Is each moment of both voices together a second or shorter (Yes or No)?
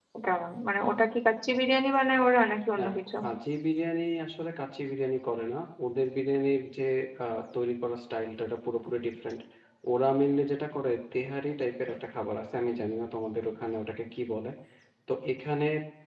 Yes